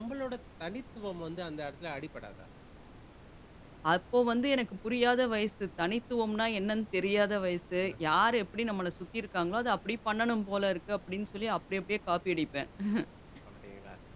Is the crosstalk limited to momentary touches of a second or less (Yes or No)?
Yes